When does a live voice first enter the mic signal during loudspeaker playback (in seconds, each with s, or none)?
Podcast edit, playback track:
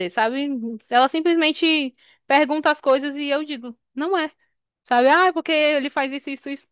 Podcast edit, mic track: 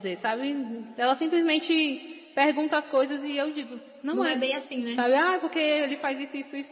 4.1 s